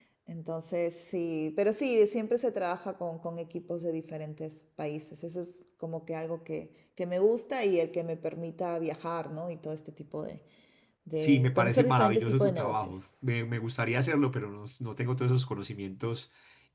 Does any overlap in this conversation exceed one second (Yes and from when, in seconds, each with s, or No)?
Yes, from 11.2 s